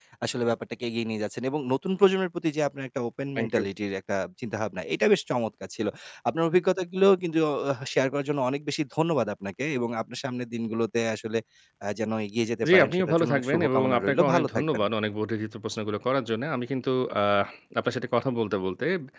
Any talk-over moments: Yes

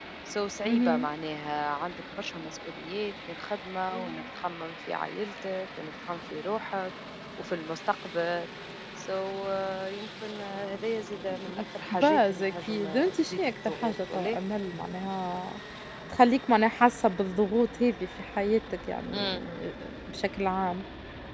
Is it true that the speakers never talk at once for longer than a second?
No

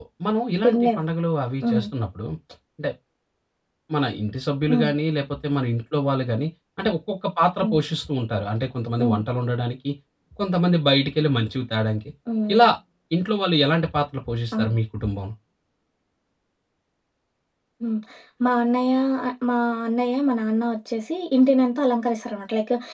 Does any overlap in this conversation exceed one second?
No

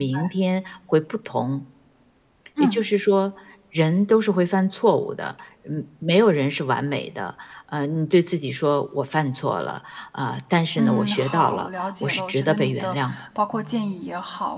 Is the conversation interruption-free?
No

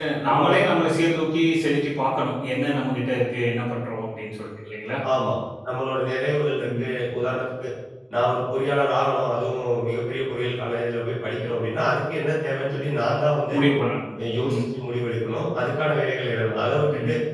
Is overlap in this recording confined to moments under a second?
Yes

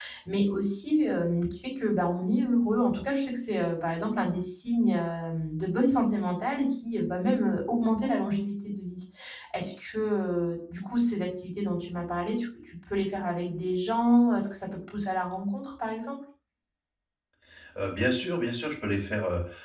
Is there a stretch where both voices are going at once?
No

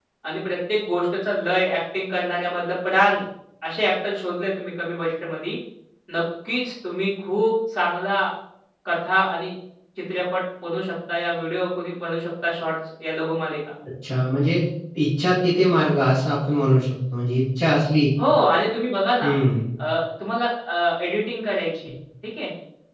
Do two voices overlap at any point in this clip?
No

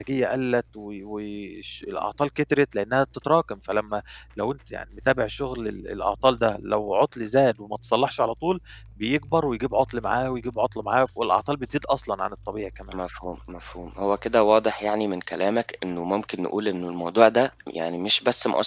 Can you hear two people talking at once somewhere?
No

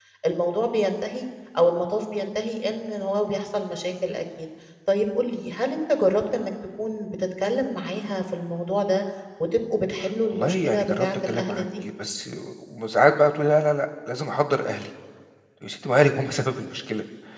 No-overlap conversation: No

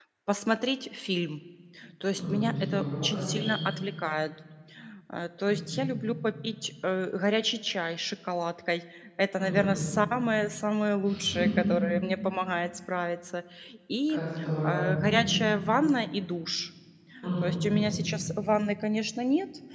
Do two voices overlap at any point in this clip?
Yes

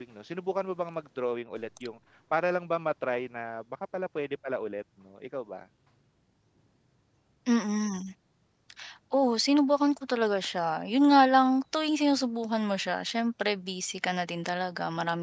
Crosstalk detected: No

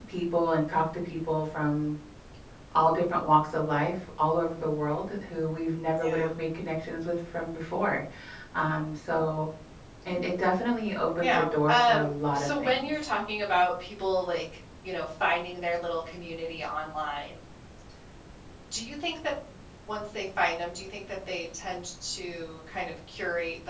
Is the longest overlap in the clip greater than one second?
Yes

